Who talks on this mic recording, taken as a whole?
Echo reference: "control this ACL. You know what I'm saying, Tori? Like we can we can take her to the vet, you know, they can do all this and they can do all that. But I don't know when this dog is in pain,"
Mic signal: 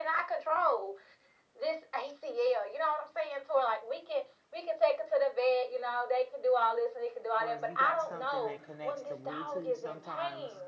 both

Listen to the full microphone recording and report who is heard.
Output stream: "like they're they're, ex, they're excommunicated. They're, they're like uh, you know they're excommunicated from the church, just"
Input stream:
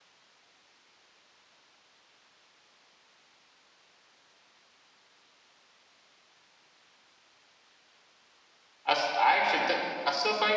user only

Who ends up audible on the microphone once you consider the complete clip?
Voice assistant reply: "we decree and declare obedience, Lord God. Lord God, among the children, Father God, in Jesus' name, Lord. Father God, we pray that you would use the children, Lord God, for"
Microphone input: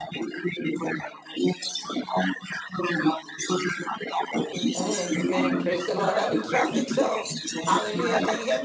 both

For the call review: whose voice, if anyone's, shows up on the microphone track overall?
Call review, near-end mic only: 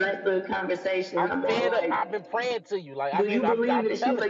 both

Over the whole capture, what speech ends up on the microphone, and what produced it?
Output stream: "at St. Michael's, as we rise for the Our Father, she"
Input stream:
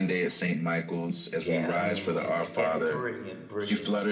both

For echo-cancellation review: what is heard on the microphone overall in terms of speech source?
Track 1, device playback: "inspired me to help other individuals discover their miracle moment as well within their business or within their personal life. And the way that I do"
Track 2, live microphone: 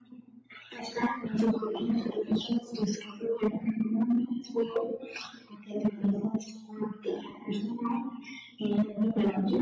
echo only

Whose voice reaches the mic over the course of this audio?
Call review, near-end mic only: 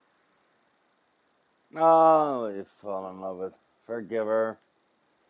user only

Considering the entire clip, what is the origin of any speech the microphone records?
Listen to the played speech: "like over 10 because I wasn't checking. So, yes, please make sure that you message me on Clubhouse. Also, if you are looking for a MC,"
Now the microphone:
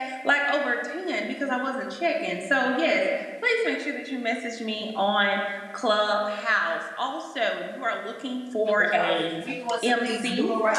both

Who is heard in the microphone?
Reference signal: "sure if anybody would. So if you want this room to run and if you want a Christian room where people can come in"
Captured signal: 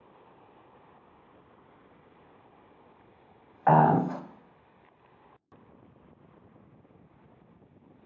user only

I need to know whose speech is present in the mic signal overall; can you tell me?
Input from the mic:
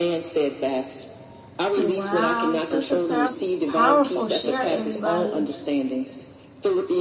both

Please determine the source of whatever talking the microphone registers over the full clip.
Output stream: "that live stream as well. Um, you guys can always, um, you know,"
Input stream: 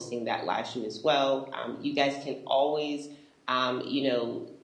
echo only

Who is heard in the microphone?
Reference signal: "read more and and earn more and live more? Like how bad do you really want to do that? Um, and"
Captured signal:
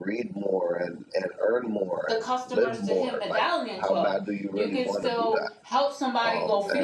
both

